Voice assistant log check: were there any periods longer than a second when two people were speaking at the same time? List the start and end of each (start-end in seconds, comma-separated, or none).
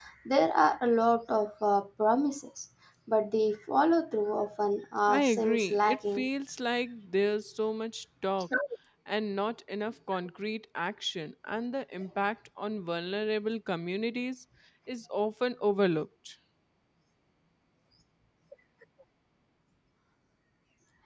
5.1-6.3